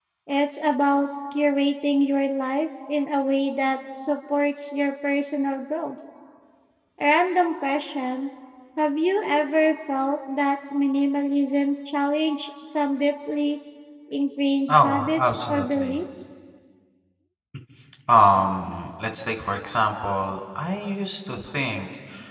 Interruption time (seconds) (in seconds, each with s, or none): 14.7 s